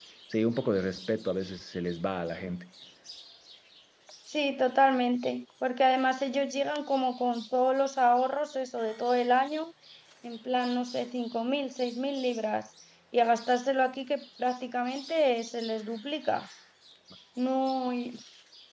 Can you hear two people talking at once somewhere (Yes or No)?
No